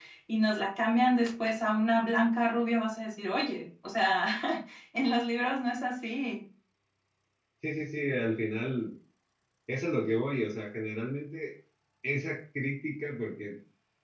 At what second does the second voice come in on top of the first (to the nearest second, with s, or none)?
none